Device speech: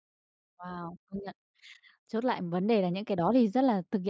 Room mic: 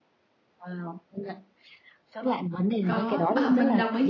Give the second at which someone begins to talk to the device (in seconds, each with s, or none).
2.8 s